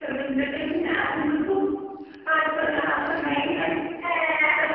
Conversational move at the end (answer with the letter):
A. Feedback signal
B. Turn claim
B